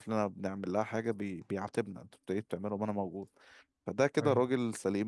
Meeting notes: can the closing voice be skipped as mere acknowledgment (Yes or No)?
Yes